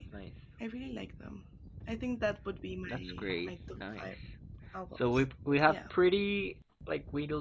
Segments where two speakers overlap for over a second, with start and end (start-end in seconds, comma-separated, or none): 2.8-4.1